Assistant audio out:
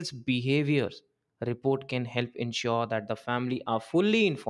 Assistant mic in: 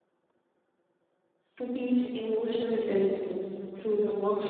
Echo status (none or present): none